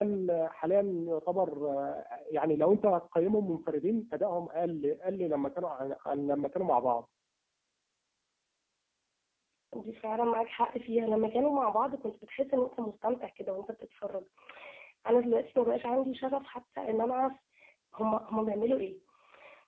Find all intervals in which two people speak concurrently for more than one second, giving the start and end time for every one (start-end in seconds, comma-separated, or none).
none